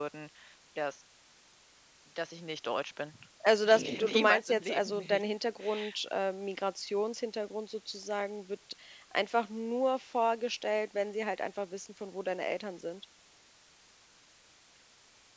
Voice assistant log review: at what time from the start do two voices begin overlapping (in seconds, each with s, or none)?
3.6 s